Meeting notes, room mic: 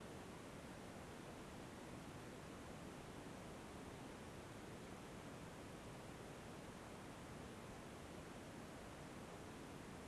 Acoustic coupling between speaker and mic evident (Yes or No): No